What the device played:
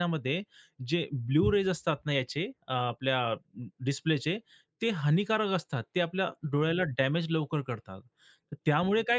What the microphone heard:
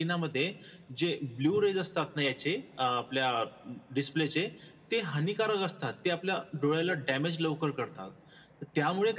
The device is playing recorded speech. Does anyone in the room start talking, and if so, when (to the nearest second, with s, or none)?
none